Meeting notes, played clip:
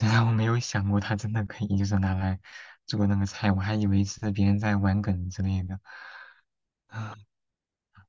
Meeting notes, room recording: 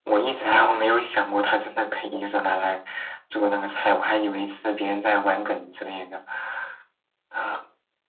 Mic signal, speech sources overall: echo only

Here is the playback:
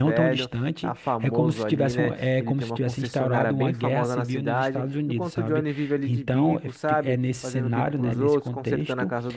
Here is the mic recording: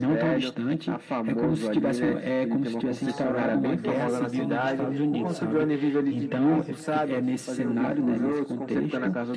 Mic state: both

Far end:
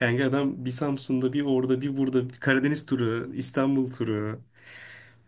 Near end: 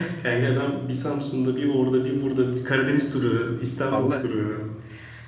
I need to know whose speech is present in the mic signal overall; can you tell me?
both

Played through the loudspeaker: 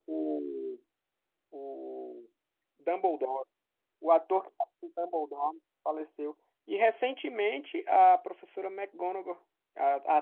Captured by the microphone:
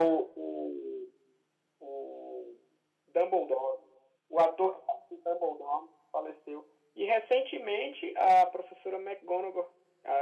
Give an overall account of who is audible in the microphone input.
echo only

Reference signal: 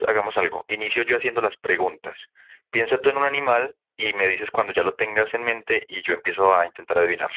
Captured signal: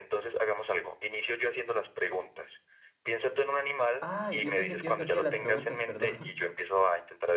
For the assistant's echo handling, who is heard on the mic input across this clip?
both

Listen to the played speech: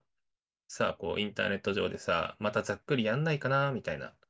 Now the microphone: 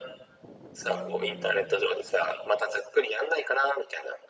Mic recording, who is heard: both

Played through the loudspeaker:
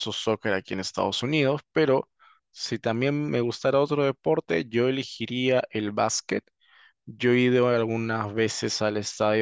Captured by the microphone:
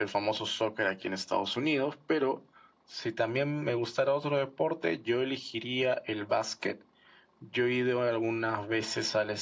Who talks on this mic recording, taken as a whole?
echo only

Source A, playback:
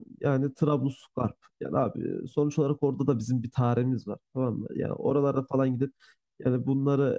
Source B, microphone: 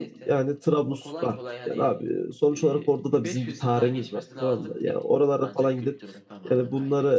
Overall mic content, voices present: both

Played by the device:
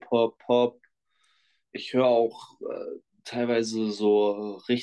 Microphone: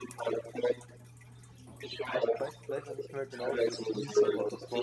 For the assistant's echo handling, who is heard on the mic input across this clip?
both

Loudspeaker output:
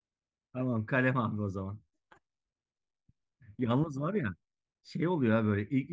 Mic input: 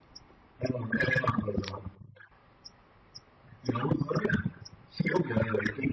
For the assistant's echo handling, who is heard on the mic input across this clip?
echo only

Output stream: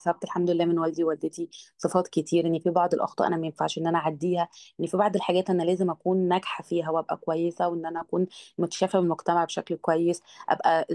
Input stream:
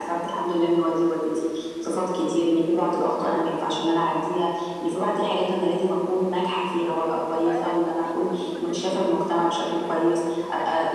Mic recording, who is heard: both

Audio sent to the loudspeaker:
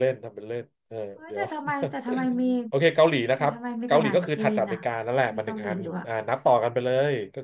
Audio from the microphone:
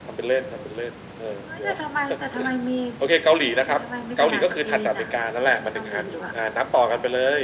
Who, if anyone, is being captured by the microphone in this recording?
echo only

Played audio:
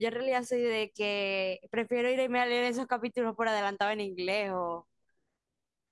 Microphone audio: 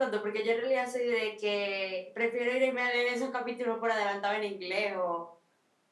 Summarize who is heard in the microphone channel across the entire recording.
echo only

